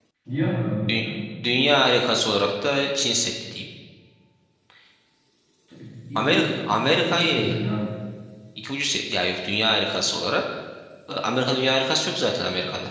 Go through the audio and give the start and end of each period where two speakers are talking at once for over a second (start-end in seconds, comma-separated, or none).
6.2-7.6